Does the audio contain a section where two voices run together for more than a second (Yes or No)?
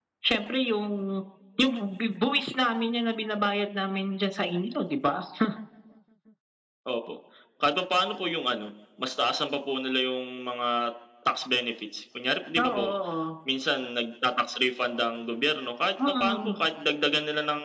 No